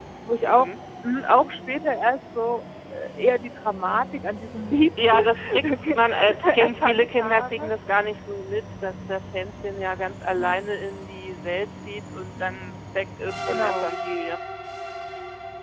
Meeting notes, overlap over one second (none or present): present